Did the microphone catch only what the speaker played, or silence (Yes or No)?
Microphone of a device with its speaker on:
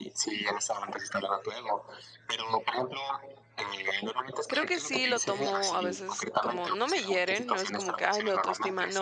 No